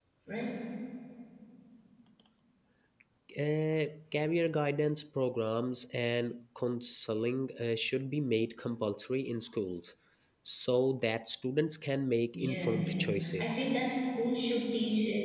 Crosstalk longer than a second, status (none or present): present